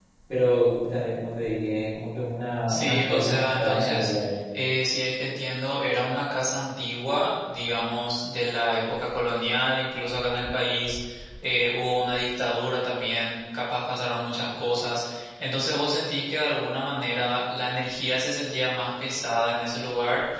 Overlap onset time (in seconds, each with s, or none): 2.7 s